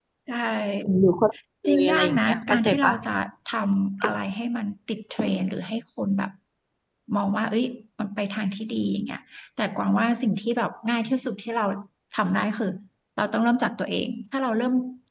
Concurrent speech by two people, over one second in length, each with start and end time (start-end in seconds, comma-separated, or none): 1.6-2.9